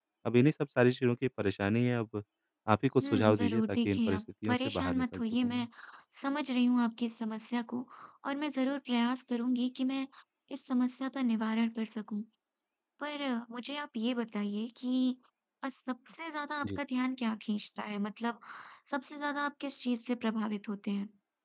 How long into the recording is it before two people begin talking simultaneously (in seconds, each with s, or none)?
3.0 s